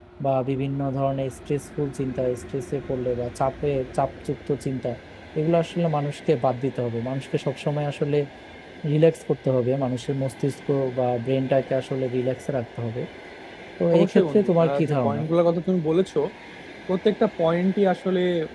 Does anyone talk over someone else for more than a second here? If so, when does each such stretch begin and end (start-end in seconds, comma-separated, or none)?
14.0-15.2